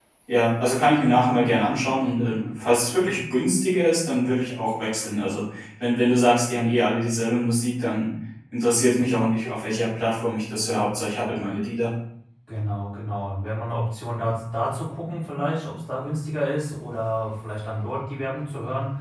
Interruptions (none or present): none